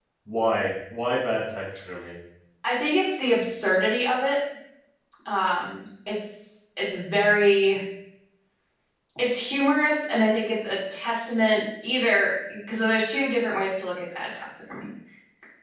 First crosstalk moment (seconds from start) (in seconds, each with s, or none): none